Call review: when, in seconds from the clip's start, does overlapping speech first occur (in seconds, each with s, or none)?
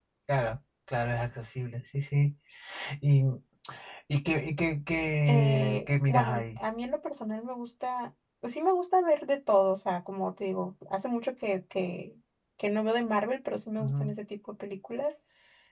5.3 s